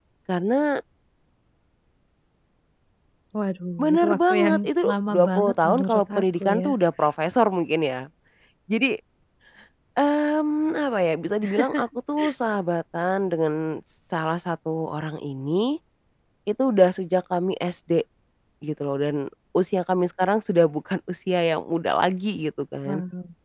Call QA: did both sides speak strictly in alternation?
No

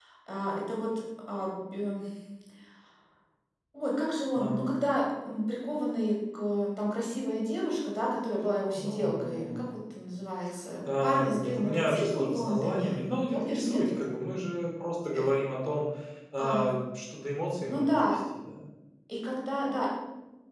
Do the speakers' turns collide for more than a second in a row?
Yes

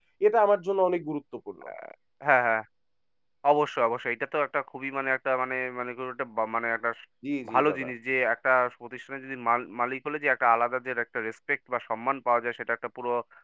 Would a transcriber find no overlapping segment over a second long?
Yes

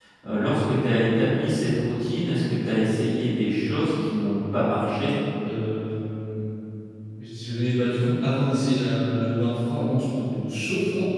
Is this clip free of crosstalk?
Yes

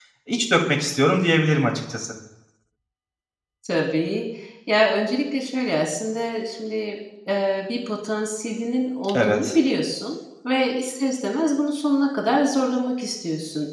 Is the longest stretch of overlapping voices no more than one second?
Yes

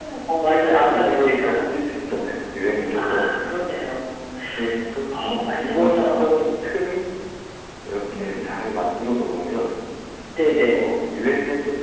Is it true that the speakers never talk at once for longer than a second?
No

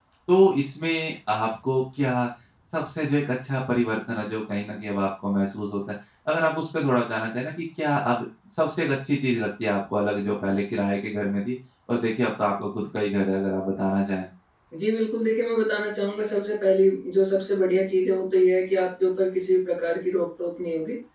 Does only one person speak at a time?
Yes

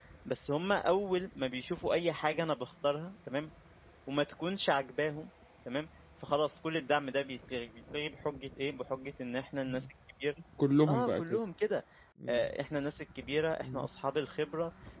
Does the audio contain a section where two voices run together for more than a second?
No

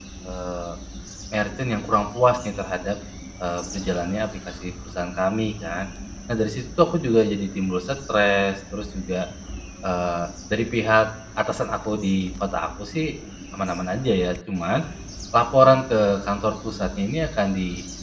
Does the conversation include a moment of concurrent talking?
No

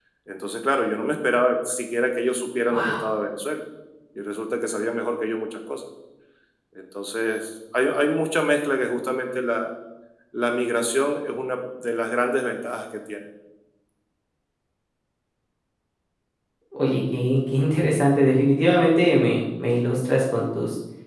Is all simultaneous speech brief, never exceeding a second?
Yes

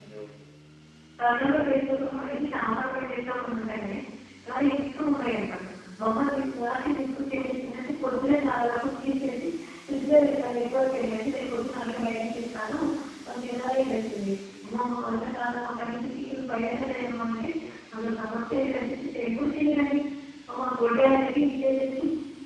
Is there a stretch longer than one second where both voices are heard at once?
No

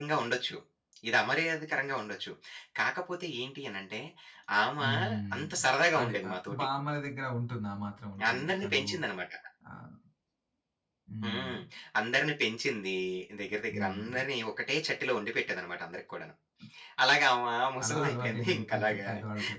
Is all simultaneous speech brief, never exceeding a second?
No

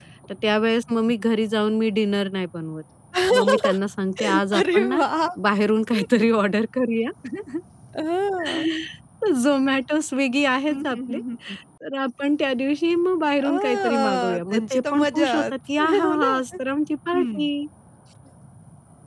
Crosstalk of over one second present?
Yes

